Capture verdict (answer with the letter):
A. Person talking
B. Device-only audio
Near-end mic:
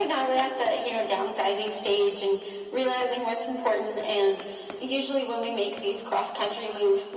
B